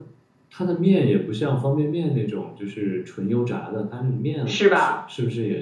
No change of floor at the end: Yes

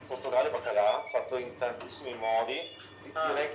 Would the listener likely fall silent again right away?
Yes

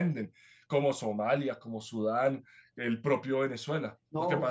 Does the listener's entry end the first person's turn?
Yes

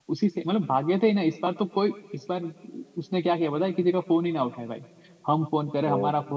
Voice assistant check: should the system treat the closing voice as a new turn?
No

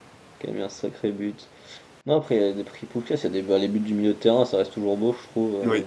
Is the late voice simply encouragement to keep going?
No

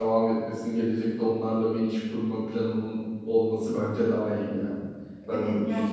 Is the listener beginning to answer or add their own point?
Yes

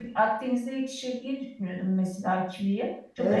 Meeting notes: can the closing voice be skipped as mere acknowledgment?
No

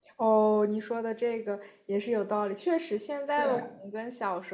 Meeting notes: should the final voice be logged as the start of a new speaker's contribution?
No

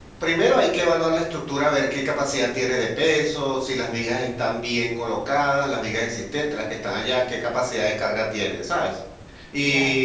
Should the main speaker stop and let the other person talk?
No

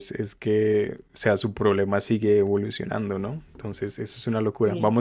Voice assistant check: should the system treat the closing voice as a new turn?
No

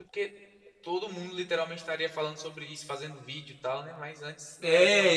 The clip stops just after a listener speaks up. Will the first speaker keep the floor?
No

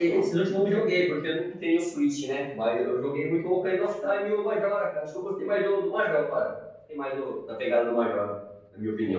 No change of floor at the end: No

